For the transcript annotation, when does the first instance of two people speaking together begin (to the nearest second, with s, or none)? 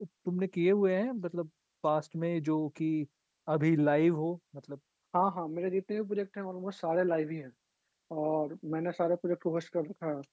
none